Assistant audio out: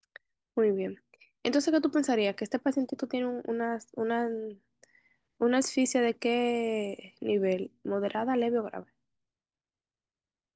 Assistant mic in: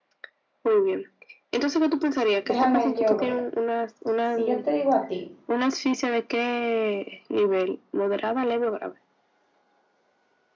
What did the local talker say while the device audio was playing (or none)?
Déjame yo ver. Si yo te digo a ti,